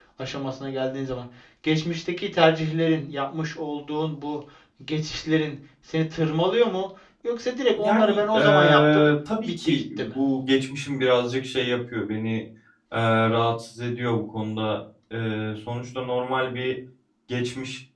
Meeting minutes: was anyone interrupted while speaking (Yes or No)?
Yes